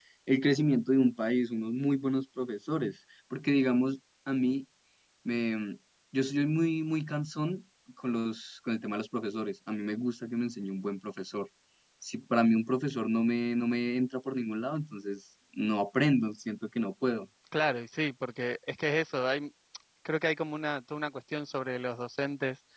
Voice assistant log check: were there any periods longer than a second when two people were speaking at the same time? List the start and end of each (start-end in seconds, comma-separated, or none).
none